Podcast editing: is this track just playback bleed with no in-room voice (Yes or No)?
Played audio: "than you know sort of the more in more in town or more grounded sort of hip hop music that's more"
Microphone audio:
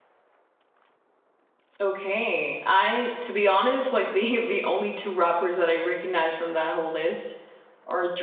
No